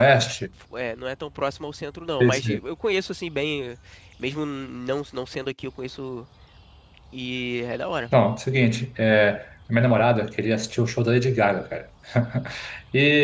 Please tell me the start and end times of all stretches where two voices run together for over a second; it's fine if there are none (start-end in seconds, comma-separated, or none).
none